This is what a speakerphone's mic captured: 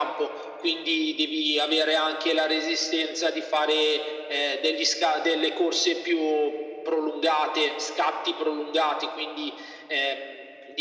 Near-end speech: none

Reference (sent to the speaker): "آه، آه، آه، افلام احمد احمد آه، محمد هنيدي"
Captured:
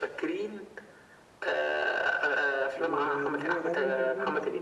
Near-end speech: present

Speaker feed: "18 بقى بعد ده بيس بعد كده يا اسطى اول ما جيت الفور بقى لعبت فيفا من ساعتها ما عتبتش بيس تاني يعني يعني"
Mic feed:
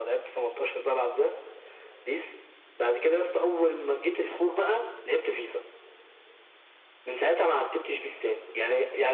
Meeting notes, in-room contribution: none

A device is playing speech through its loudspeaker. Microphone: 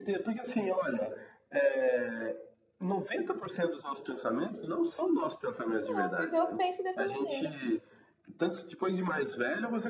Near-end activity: present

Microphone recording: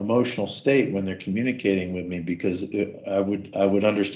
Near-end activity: present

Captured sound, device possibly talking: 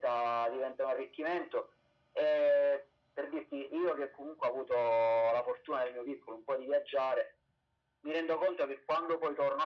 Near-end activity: none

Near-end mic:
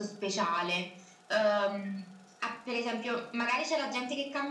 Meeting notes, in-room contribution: none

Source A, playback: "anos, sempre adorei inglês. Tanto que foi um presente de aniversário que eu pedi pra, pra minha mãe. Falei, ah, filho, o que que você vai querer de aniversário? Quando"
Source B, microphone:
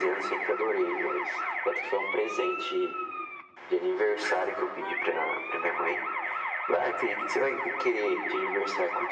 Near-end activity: none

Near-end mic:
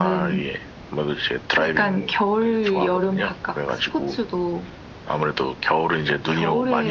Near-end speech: none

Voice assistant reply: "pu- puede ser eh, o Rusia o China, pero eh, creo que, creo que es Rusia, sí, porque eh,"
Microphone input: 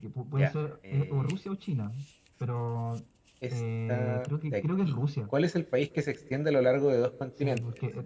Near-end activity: present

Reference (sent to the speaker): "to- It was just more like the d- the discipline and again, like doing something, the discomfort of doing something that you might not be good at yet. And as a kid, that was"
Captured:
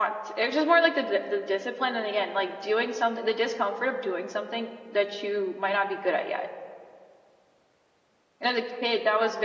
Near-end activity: none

